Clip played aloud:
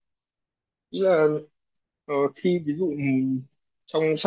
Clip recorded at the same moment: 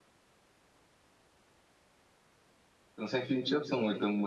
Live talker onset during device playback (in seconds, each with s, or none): 3.0 s